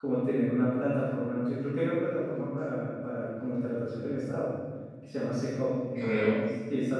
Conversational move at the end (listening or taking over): listening